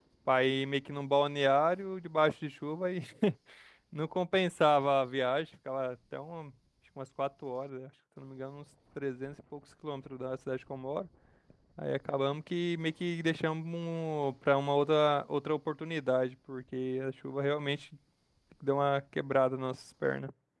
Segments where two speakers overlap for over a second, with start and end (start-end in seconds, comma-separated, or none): none